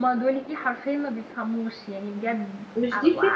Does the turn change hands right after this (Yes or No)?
Yes